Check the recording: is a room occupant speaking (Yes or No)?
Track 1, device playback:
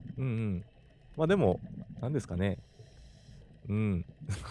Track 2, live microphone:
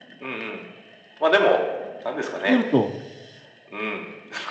Yes